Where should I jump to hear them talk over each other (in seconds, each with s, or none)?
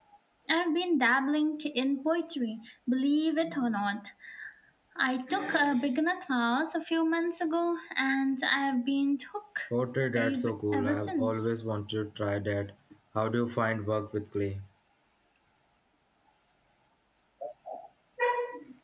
10.2 s